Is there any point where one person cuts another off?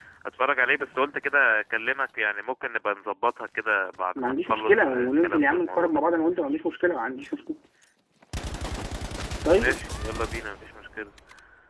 Yes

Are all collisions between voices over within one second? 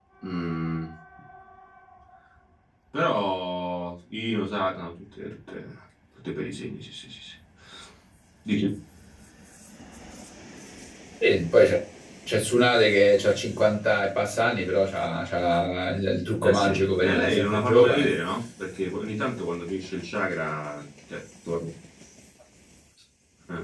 No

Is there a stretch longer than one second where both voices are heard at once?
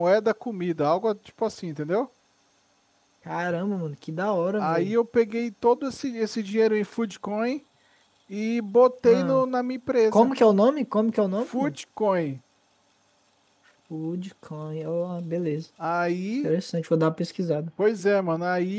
No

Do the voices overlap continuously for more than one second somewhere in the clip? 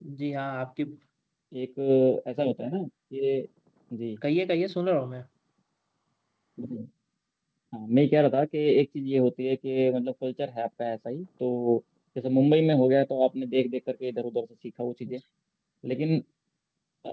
No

